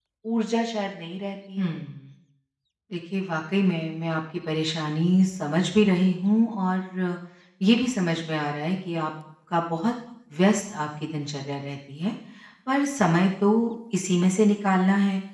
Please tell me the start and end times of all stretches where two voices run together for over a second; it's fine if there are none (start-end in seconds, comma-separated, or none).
none